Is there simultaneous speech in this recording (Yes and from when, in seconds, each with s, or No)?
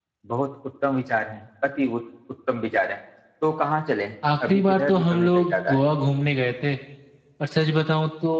Yes, from 4.2 s